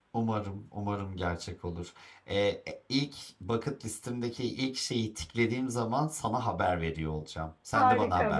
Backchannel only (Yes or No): No